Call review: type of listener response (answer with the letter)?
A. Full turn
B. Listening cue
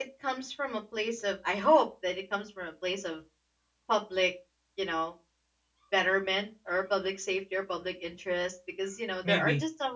B